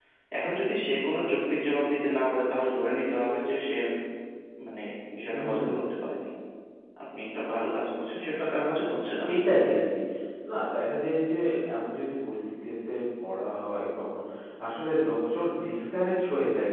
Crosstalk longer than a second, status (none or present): none